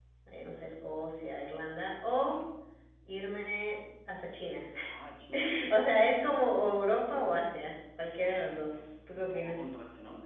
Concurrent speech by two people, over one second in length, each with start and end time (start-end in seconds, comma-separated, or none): 8.2-9.7